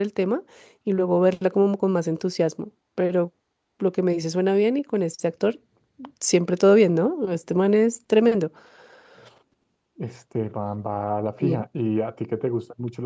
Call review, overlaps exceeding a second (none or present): none